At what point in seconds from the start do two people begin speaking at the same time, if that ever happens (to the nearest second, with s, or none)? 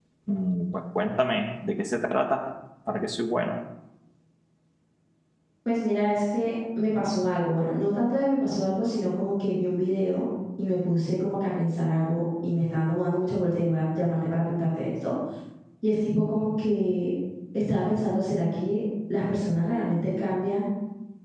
none